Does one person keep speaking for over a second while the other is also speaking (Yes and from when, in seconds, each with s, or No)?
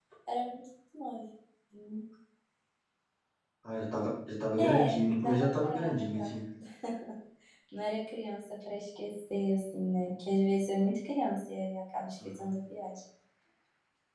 Yes, from 4.6 s